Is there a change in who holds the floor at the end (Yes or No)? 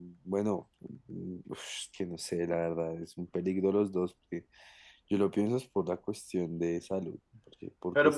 Yes